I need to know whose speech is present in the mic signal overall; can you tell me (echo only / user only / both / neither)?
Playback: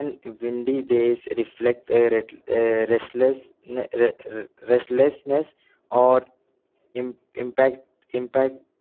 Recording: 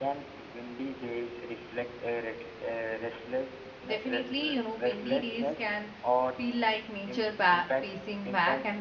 both